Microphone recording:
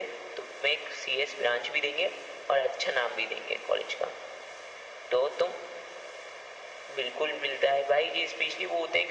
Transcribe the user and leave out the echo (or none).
none